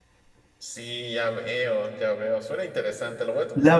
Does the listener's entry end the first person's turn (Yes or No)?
Yes